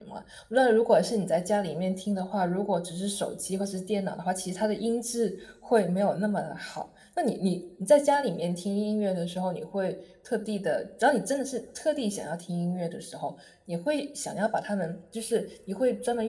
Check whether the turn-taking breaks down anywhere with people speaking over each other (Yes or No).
No